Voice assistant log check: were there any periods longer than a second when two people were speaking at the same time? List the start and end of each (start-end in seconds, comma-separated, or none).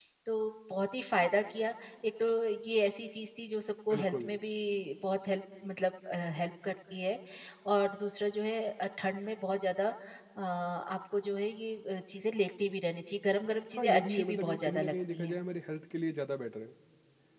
13.8-15.4